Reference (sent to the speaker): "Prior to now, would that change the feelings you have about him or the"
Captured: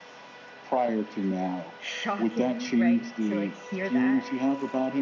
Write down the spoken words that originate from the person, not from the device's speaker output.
shocking, right, to like hear that

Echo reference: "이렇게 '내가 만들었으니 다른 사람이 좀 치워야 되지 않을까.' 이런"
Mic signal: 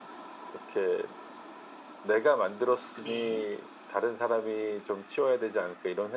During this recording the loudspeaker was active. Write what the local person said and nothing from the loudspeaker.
네.

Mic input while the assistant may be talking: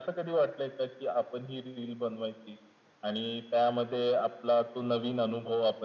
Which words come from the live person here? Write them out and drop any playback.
none

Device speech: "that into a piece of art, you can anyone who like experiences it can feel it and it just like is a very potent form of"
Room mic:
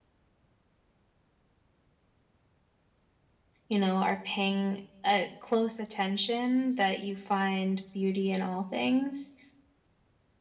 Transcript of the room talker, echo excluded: you know, are paying a close attention, that you find beauty in all things.

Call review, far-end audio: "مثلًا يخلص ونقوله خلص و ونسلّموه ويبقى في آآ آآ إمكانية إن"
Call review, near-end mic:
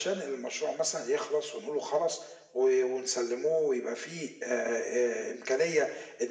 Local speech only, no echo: none

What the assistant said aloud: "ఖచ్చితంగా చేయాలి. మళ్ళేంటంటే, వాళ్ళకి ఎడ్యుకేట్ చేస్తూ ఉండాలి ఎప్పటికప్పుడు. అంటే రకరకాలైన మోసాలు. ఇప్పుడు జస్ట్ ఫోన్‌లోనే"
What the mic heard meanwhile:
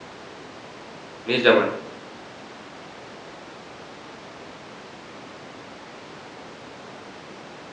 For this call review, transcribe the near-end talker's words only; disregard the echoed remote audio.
నిజమండి.

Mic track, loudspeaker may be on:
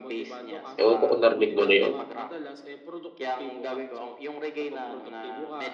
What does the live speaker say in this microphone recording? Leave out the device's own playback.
Ewan ko kung narinig mo na yun.

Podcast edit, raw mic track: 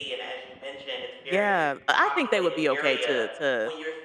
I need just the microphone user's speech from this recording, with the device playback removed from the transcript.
Yeah, I I think they would be okay to to

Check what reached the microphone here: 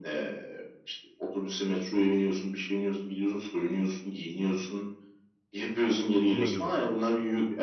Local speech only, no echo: Ne güzel.

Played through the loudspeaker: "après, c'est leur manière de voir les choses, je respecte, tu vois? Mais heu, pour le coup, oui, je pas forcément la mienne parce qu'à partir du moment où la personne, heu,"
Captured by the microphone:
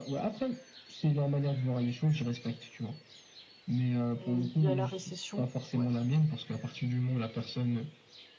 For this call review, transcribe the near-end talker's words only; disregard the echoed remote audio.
et il y a la récession, ouais.

